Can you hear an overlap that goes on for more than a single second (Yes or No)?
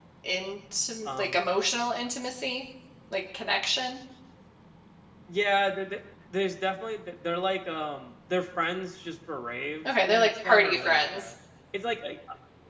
Yes